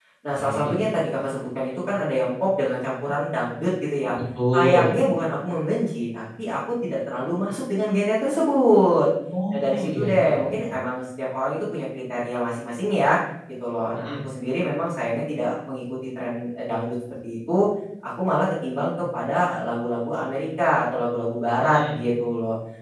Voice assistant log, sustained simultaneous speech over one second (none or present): present